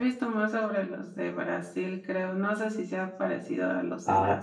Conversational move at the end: taking over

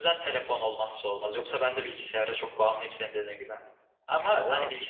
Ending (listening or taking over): listening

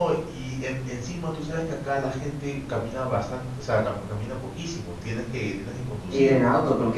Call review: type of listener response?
taking over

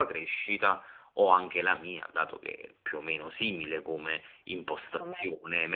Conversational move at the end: listening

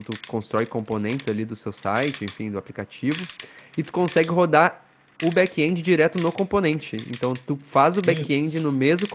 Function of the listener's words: listening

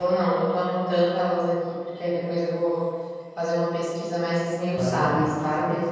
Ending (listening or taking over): taking over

